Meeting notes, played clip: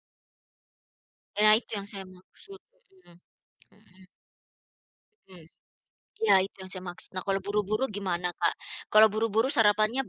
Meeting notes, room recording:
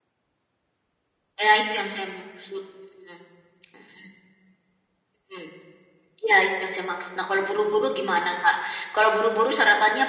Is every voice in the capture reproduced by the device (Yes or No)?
Yes